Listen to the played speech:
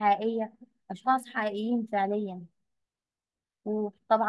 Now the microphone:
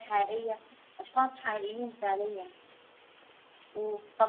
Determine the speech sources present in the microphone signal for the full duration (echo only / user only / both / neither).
echo only